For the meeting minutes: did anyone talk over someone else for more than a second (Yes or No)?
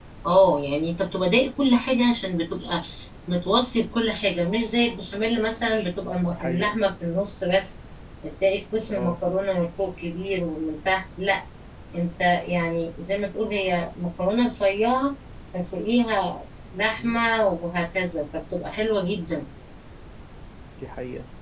No